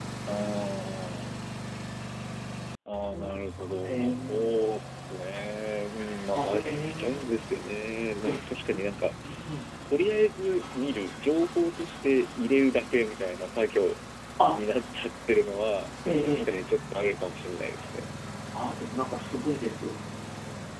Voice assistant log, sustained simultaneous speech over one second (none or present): present